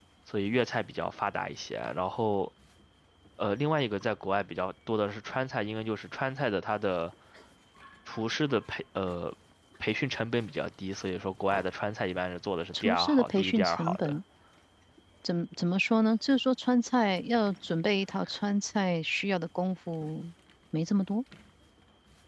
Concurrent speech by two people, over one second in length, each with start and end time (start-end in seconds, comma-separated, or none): 12.8-14.2